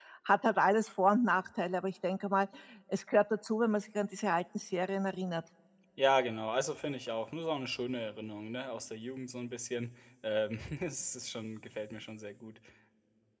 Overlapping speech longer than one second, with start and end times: none

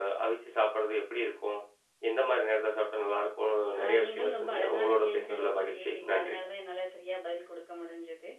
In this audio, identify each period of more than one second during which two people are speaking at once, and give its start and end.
3.8-6.4

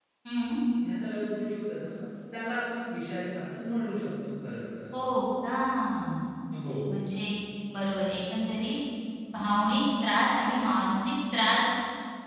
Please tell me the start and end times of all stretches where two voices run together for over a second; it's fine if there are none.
none

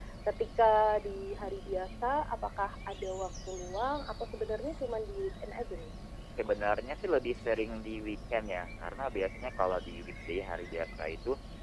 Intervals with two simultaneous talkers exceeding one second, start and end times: none

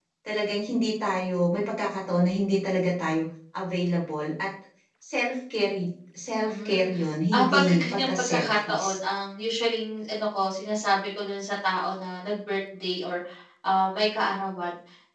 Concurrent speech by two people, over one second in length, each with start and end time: 7.3-8.8

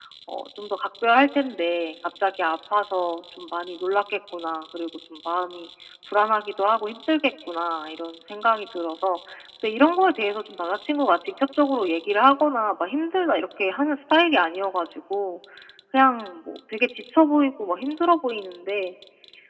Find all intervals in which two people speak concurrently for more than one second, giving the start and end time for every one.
none

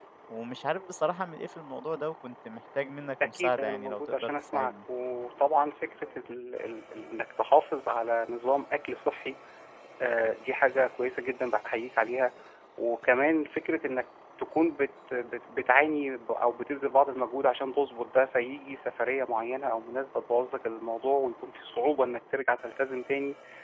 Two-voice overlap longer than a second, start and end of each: 3.2-4.7

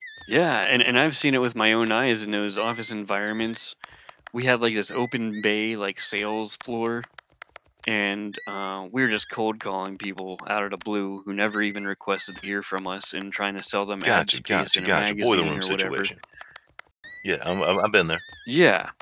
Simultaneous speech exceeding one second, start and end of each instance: 14.0-16.1

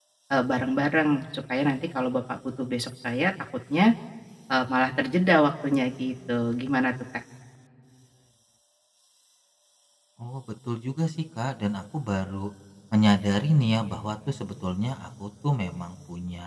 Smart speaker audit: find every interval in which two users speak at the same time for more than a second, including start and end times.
none

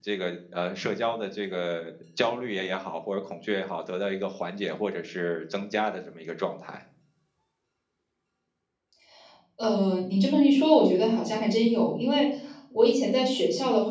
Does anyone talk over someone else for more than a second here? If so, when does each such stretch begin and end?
none

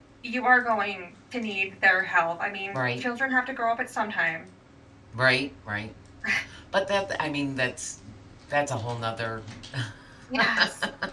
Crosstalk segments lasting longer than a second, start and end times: none

